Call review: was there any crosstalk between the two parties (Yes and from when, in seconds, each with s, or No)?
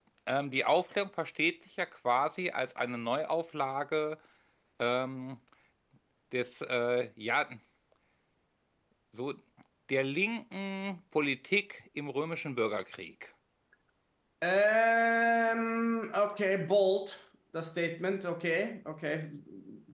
No